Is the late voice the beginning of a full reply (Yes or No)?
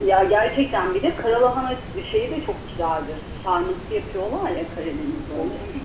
Yes